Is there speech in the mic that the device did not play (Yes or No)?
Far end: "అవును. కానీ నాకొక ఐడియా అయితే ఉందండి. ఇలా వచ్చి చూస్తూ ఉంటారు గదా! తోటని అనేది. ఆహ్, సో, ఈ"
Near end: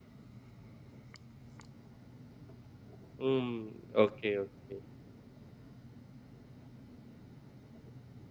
Yes